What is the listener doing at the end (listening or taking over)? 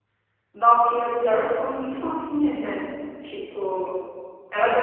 listening